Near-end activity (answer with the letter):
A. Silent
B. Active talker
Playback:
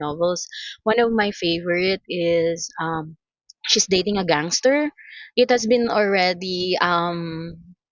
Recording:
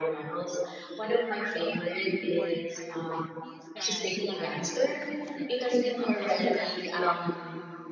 B